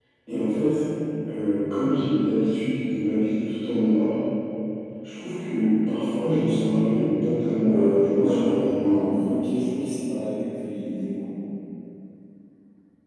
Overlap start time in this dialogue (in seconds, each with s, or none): 7.4 s